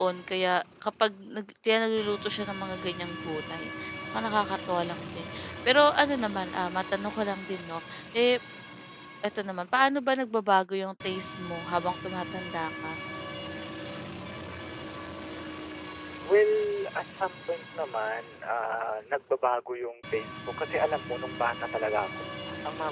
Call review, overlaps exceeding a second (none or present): none